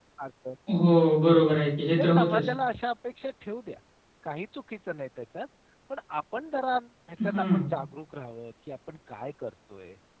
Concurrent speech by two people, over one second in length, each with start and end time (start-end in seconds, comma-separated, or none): none